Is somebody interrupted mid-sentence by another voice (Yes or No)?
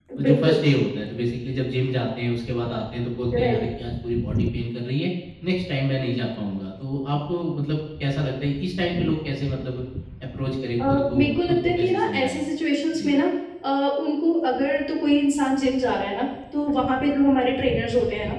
Yes